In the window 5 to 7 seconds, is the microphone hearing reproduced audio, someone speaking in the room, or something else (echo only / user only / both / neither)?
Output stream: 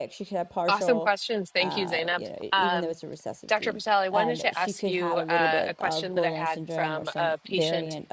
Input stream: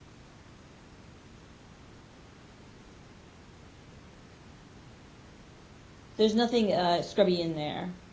user only